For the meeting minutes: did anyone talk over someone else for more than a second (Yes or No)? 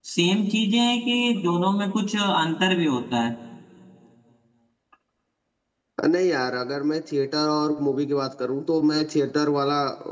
No